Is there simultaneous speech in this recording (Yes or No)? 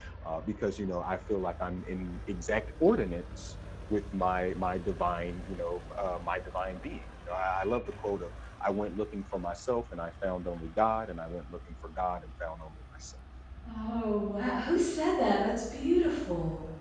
No